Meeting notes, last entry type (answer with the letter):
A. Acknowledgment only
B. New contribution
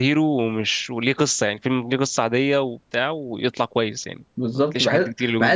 B